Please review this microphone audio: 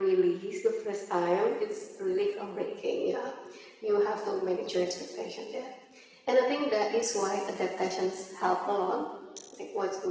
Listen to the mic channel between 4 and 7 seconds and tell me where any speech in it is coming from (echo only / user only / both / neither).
echo only